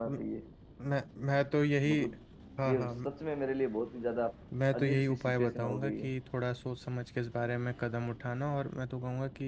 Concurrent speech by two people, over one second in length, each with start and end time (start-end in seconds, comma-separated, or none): 4.7-6.1